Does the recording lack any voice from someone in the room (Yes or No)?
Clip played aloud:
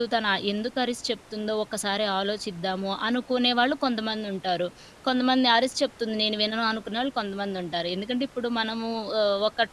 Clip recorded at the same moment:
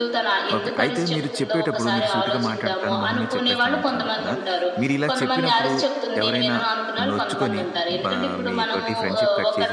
No